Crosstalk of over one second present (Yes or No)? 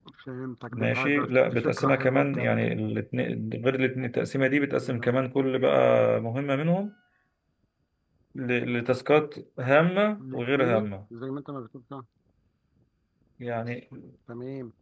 Yes